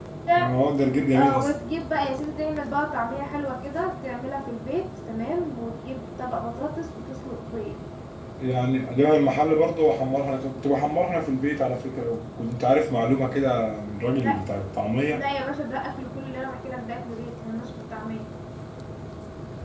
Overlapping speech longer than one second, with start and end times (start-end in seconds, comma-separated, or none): none